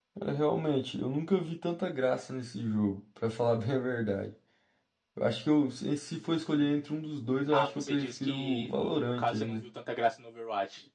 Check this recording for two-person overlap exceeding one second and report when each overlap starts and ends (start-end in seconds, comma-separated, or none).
7.5-9.6